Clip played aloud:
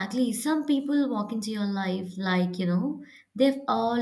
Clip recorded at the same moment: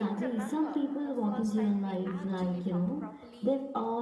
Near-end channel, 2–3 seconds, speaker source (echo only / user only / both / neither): both